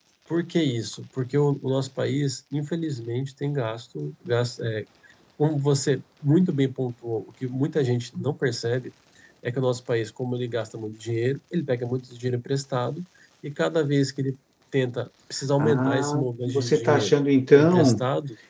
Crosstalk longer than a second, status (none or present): present